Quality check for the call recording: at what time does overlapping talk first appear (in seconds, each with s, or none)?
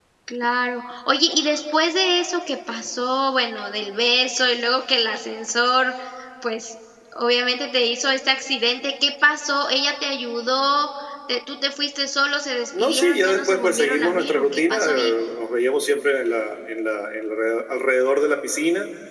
12.7 s